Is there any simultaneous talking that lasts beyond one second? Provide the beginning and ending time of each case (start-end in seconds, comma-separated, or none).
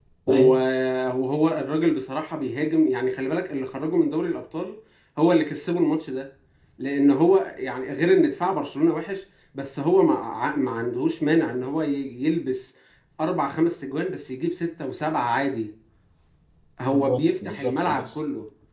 16.9-18.2